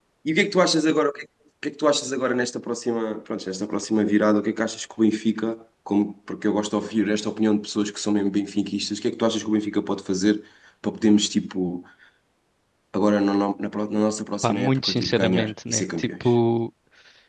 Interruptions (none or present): present